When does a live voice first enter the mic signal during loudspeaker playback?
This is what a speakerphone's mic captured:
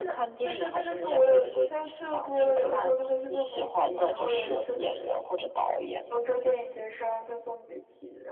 none

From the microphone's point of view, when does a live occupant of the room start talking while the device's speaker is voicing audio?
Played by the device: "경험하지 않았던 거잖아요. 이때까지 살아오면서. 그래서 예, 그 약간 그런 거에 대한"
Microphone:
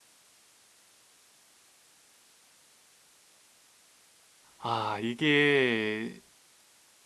5 s

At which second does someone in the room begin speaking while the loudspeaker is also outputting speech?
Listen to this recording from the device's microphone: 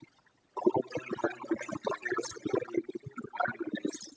none

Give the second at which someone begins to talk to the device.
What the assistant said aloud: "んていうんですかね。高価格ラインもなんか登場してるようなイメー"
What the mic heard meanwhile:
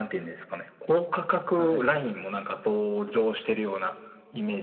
2 s

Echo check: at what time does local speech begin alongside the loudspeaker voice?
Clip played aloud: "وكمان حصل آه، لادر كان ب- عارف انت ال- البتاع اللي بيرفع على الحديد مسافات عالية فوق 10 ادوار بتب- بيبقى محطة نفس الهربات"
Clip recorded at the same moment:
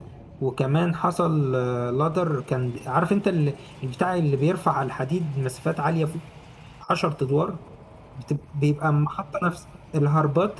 none

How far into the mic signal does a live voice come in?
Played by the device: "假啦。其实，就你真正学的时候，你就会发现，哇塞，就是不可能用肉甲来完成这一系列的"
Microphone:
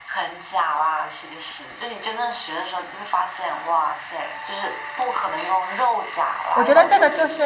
7 s

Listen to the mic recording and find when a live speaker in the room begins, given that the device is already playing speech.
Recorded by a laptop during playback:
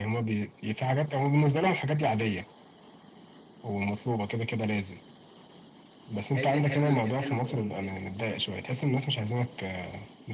6 s

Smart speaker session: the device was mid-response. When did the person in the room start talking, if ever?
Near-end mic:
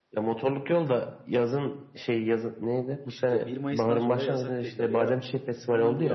3 s

